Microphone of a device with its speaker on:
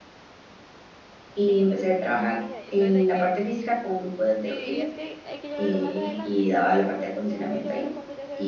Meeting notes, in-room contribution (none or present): present